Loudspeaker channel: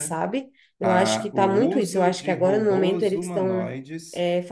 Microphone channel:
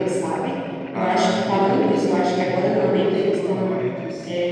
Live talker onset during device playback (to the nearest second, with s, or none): none